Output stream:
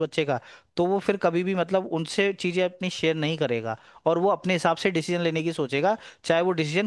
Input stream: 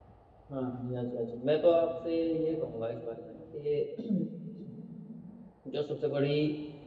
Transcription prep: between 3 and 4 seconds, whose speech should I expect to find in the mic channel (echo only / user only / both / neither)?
user only